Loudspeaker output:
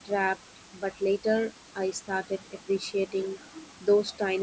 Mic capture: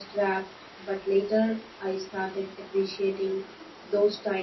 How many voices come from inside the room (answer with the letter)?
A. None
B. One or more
A